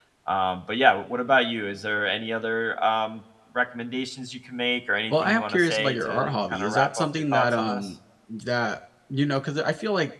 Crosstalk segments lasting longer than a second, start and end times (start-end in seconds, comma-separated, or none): 5.1-7.9